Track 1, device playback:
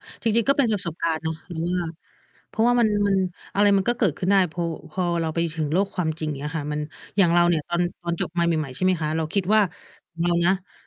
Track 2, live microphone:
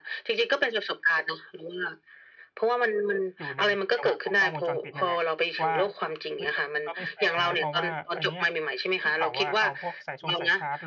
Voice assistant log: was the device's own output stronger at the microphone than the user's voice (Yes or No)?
Yes